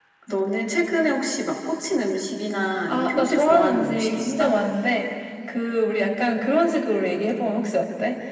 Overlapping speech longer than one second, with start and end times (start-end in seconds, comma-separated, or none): 2.9-4.5